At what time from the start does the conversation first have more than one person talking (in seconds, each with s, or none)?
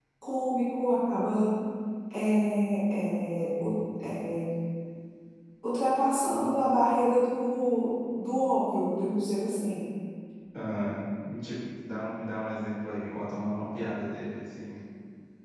none